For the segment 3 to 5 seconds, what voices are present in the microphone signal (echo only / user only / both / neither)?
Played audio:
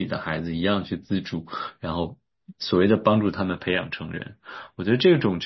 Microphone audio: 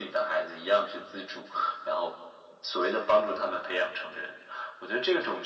echo only